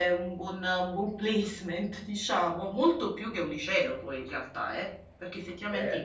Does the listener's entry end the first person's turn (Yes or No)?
Yes